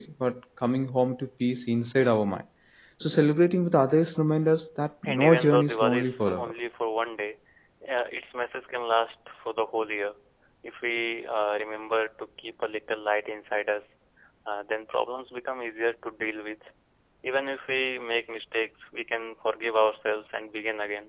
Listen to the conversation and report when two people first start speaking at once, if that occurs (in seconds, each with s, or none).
5.0 s